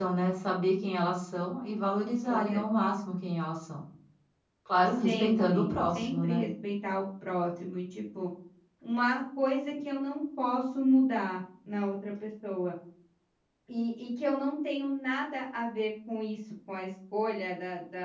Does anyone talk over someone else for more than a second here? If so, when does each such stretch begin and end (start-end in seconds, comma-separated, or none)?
5.0-6.4